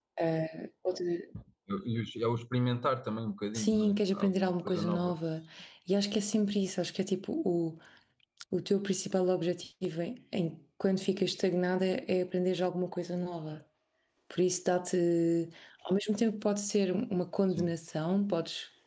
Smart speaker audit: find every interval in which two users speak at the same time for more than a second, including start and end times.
3.5-5.2

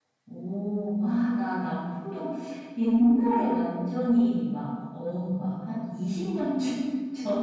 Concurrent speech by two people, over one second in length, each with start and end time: none

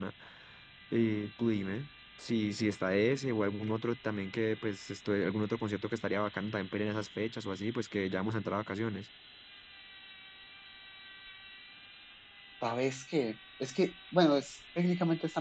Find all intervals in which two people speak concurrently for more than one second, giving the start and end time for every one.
none

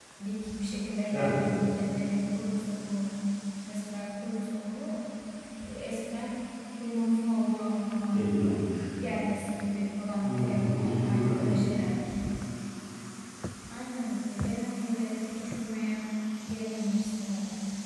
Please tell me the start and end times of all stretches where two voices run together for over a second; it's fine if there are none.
10.2-11.6

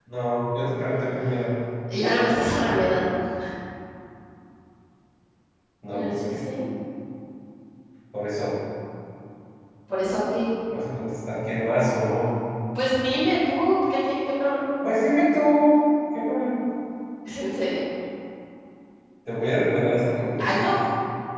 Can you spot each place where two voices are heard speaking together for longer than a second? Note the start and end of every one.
none

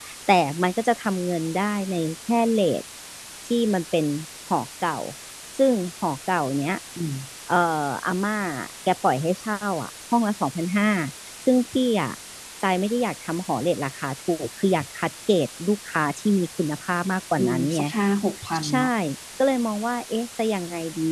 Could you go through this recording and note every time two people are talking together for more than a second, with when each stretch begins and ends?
none

